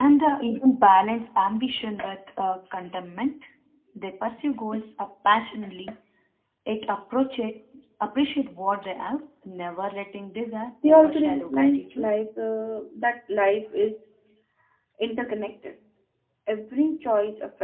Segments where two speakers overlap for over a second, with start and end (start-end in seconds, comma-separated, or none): 10.8-12.1